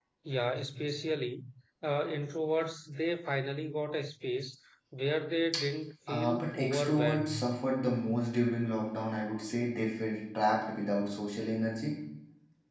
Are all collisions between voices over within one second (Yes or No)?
No